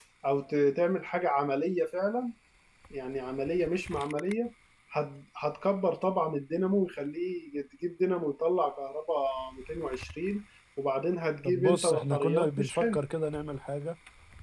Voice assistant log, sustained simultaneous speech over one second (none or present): present